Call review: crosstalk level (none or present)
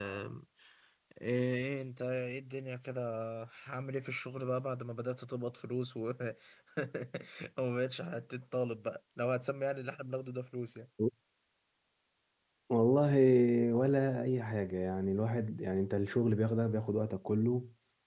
none